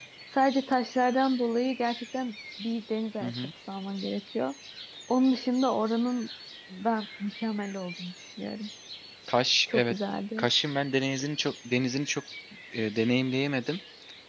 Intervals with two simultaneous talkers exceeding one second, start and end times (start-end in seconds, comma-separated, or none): none